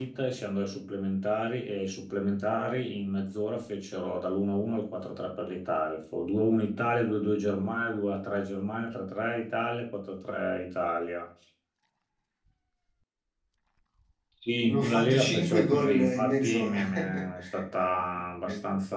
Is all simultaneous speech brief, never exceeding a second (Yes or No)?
No